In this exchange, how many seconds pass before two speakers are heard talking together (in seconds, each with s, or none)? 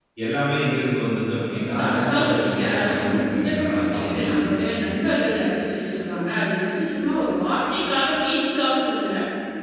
1.5 s